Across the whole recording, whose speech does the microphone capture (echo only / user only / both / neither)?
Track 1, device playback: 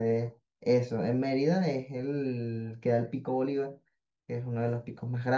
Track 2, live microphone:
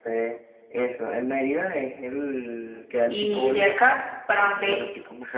both